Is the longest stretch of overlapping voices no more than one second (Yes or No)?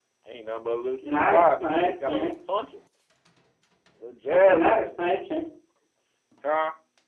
No